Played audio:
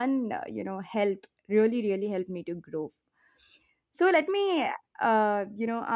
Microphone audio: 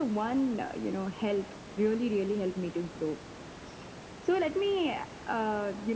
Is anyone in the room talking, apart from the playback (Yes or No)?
No